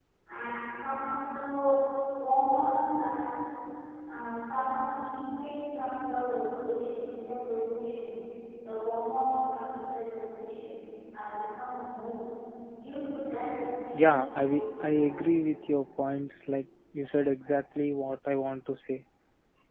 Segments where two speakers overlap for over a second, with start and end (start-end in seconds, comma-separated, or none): 13.9-15.3